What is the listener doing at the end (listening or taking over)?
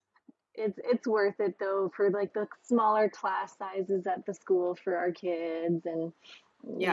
taking over